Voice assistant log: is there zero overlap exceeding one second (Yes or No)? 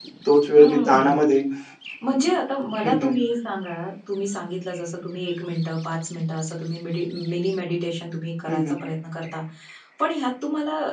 Yes